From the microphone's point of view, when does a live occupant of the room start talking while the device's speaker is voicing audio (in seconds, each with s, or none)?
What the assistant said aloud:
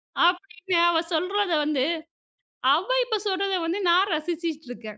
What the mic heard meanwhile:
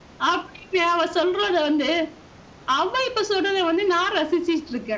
none